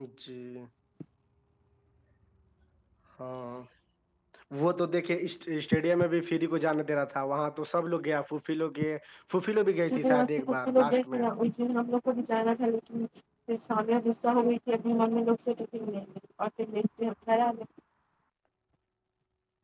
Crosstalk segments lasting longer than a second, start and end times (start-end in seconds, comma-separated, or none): 9.9-11.3